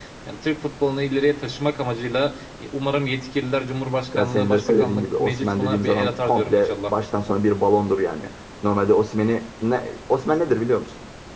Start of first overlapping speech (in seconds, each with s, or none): 4.1 s